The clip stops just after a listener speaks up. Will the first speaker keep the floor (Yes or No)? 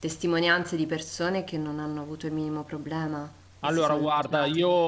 No